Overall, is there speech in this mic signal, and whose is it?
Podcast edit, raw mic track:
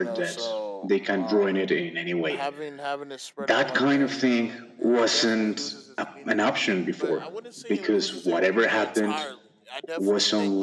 both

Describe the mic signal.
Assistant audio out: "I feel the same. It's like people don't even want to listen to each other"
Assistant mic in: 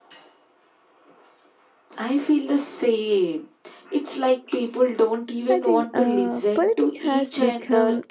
both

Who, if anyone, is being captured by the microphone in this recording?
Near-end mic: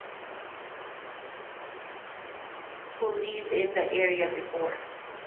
user only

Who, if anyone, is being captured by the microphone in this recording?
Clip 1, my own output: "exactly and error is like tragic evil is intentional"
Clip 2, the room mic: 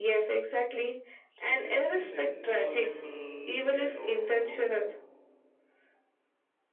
both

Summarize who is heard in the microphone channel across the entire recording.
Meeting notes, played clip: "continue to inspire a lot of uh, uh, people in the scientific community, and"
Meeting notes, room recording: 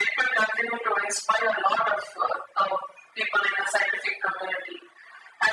echo only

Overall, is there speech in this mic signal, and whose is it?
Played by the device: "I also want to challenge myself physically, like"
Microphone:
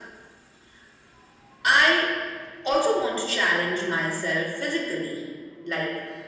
echo only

